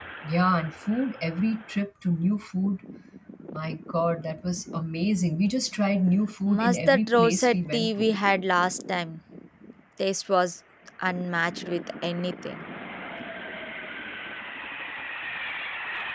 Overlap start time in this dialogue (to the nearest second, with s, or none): 6 s